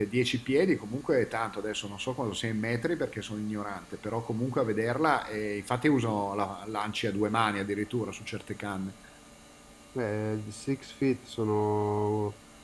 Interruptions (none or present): none